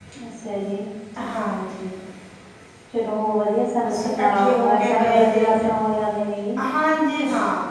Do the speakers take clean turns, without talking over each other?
No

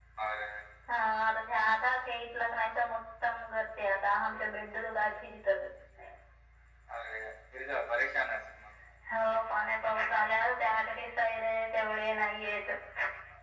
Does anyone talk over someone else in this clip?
No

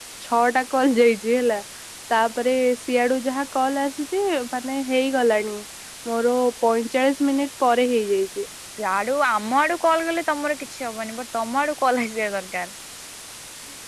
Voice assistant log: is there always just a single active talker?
Yes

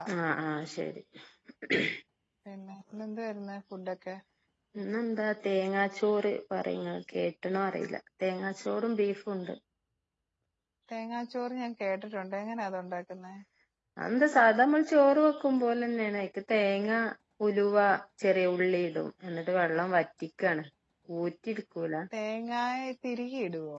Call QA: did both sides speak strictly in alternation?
Yes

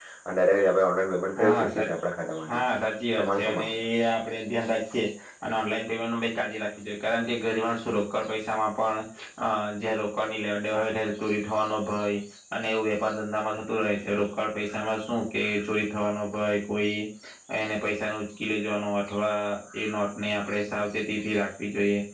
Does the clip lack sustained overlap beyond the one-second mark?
Yes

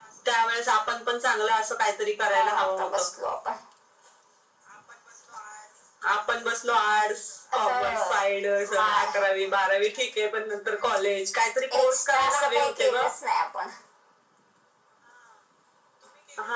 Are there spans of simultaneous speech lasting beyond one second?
Yes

